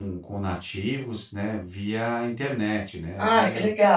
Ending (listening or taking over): taking over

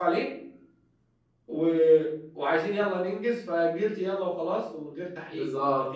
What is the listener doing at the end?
taking over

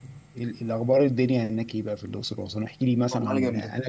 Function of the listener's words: listening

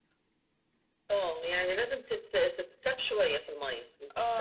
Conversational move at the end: taking over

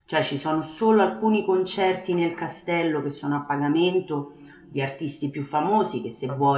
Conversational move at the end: listening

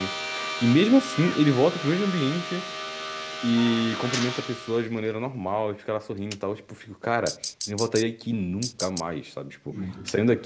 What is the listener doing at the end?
listening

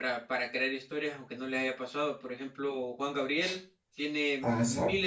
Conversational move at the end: listening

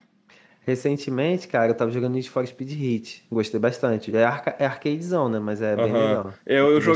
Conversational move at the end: taking over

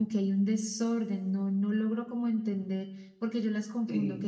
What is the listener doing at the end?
listening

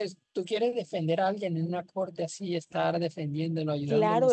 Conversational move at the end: taking over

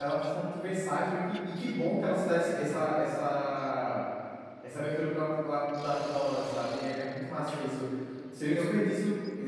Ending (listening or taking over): listening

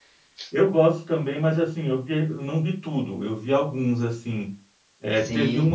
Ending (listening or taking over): listening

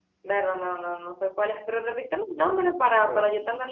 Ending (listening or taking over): taking over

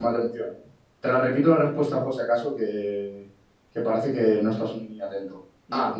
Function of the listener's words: listening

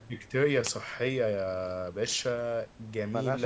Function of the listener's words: listening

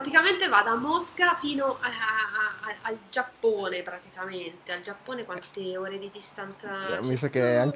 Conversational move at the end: taking over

